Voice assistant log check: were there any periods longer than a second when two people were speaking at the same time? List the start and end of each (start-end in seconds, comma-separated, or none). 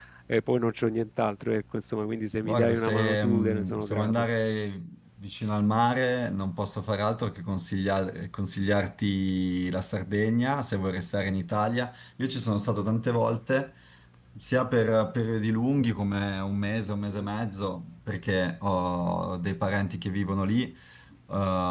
2.4-4.2